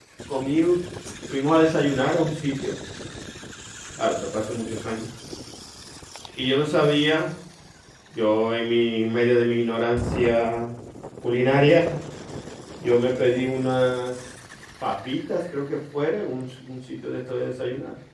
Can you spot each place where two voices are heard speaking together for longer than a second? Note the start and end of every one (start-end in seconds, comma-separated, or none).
none